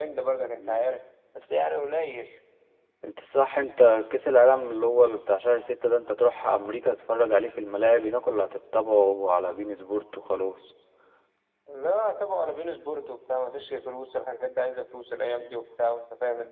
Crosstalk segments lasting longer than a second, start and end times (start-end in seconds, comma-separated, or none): none